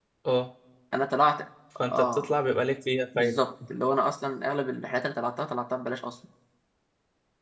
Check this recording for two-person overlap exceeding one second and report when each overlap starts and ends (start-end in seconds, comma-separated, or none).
none